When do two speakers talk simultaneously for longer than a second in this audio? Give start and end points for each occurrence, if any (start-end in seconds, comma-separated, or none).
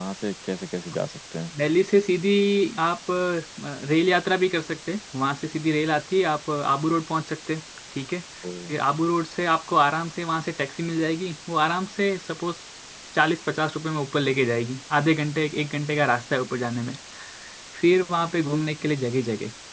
none